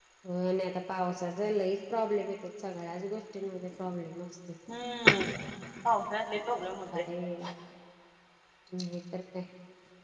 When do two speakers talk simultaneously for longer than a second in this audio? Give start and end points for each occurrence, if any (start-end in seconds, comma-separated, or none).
none